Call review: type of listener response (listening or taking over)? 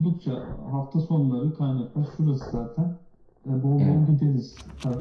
listening